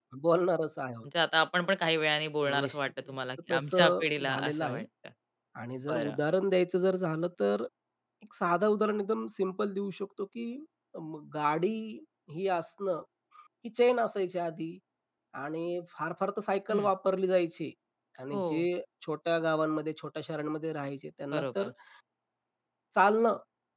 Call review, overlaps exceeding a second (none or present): present